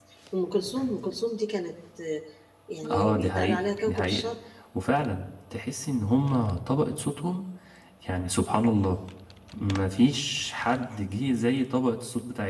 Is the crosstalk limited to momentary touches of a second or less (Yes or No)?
No